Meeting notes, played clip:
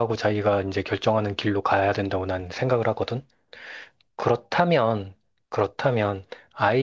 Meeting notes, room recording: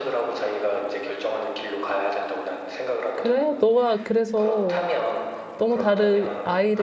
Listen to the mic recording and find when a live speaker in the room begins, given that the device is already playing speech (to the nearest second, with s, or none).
3 s